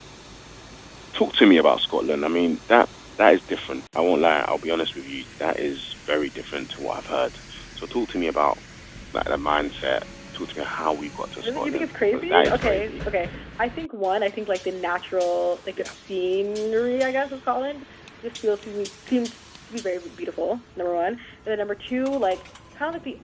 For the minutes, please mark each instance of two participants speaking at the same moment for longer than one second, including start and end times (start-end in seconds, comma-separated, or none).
11.4-12.9